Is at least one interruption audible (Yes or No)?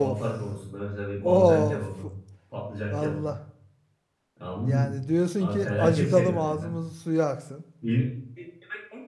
Yes